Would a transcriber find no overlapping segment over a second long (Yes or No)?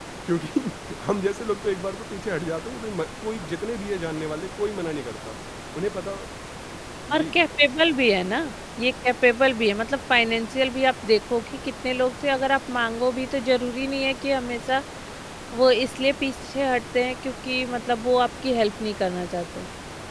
Yes